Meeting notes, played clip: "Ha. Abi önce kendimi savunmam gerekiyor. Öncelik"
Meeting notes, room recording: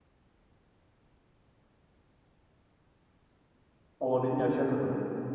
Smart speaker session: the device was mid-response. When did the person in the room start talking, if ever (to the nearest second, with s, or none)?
4 s